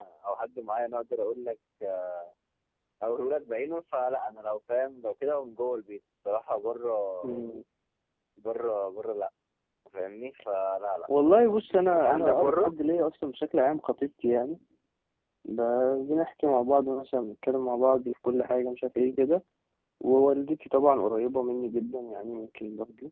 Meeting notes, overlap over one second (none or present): present